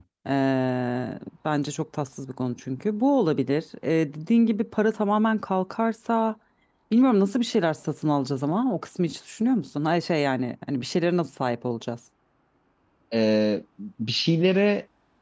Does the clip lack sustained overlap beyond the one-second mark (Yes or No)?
Yes